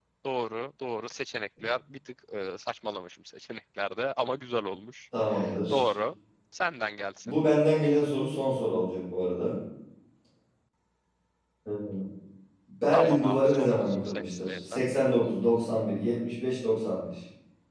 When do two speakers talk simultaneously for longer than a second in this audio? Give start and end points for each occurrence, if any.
12.9-14.8

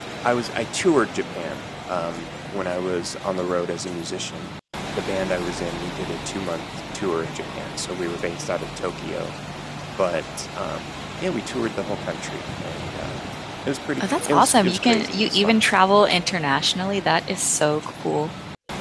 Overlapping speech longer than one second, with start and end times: 14.3-15.6

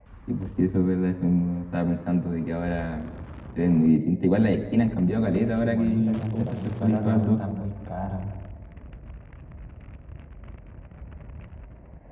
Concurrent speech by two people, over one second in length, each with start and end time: 5.2-7.4

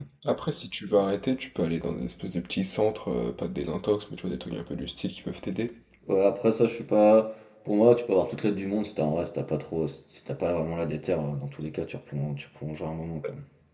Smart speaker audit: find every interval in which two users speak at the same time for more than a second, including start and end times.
none

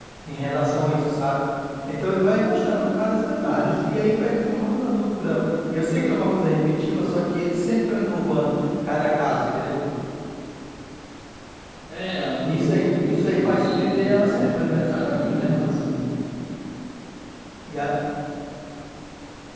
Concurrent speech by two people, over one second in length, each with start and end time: 12.4-15.5

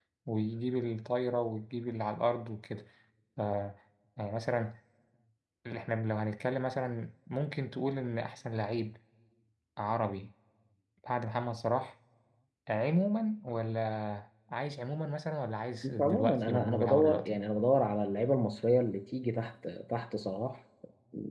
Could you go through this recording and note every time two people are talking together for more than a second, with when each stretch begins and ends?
16.0-17.4

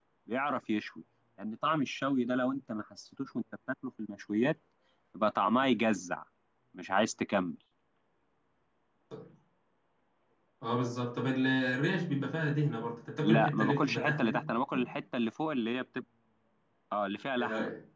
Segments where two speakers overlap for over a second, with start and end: 13.2-14.4

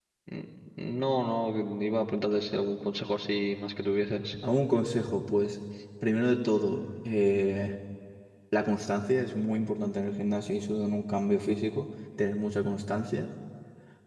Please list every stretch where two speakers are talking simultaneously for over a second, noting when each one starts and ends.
none

